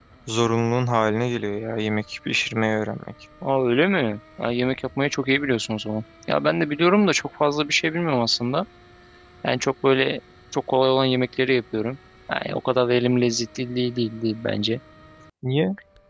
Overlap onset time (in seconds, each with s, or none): none